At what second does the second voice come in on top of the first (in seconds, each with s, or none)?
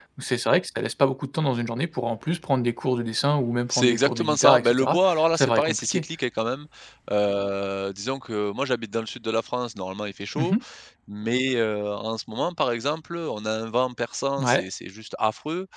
3.7 s